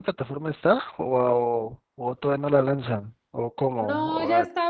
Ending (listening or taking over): taking over